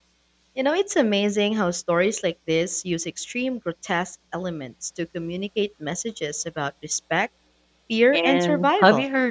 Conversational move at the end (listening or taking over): taking over